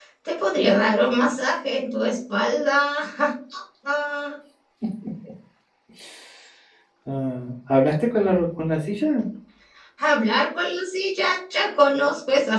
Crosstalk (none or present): none